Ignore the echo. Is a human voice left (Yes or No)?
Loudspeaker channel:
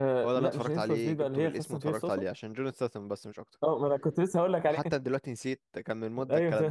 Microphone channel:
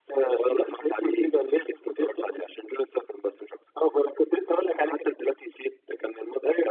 No